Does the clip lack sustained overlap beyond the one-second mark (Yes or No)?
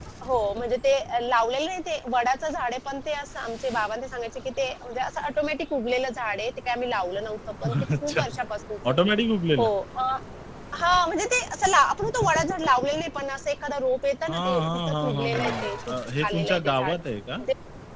No